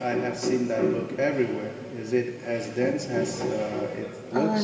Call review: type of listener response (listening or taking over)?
taking over